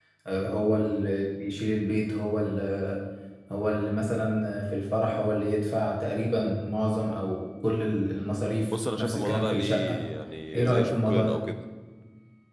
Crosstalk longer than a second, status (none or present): present